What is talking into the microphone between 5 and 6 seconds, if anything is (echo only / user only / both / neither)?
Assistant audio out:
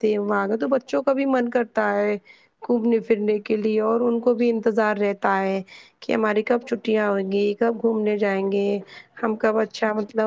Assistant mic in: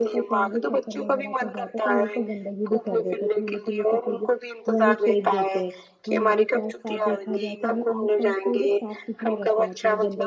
both